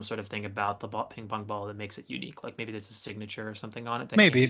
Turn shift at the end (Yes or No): Yes